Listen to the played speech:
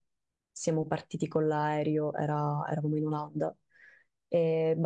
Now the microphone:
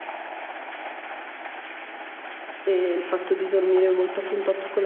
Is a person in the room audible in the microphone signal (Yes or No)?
Yes